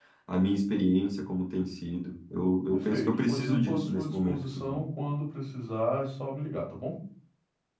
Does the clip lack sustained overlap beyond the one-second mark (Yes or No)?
No